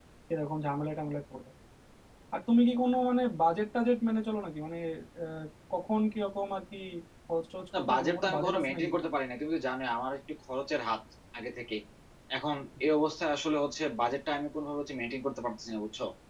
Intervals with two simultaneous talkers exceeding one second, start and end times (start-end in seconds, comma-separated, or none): 7.8-9.1